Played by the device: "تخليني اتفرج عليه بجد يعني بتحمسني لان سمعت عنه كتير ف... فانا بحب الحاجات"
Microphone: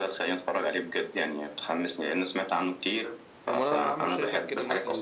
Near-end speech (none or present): present